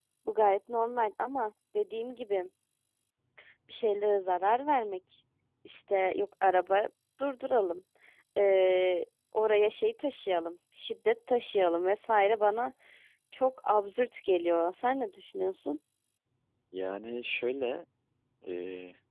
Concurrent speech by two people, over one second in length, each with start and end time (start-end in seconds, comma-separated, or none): none